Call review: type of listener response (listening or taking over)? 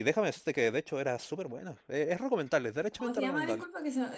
taking over